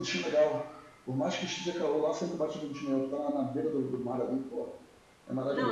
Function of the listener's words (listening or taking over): taking over